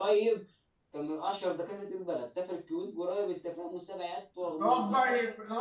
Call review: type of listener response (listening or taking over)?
taking over